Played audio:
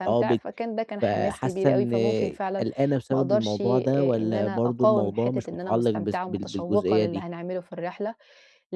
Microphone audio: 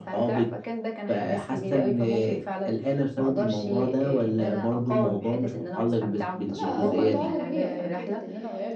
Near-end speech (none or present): present